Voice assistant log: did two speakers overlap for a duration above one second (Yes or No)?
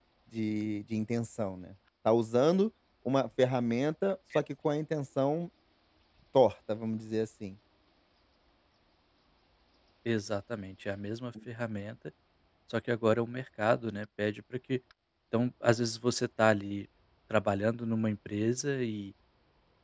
No